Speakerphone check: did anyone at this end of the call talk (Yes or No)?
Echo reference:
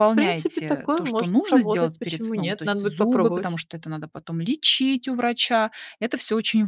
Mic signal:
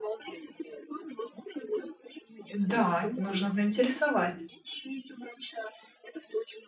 Yes